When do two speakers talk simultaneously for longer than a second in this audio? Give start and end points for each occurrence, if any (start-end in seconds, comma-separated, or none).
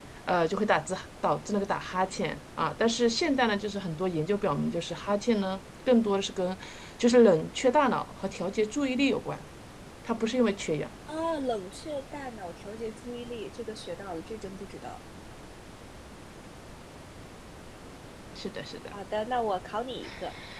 none